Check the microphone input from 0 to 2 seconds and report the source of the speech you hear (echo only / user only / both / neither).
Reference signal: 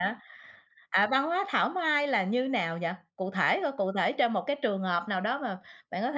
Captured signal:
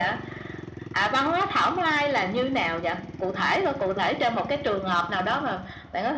echo only